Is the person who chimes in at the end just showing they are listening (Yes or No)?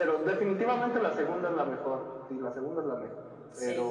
Yes